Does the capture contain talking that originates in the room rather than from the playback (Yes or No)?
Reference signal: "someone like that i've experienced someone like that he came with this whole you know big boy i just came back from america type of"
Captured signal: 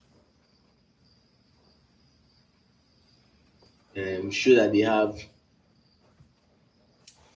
Yes